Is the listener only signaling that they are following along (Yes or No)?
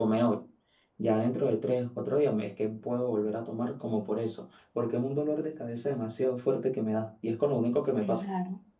No